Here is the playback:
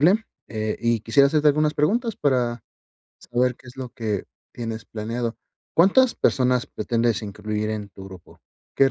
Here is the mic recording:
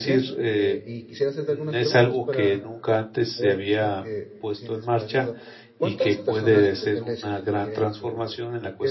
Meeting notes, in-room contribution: present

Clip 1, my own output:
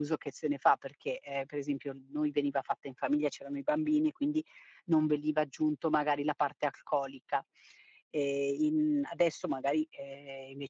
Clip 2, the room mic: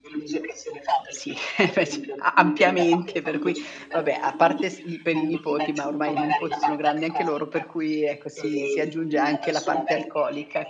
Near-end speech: present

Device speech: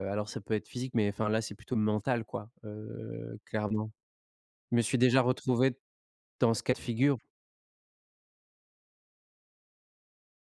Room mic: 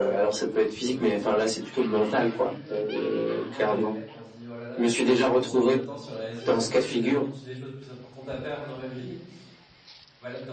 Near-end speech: present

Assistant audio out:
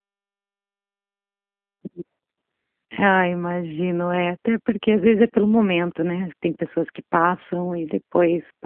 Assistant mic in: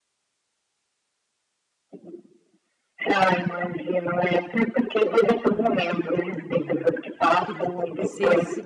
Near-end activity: present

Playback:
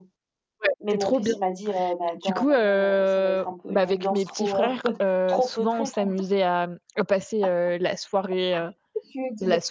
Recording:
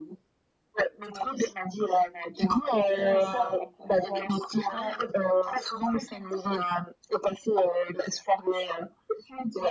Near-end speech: present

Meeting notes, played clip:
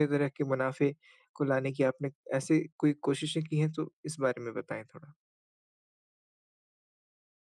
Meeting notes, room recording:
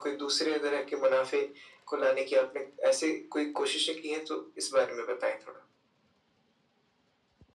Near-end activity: none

